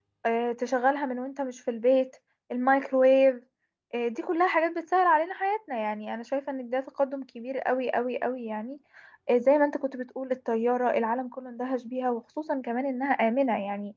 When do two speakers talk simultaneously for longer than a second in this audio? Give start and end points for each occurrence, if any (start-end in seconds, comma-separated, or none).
none